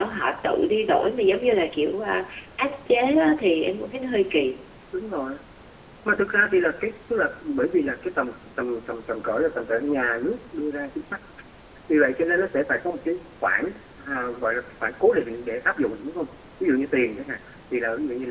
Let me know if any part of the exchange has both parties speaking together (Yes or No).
No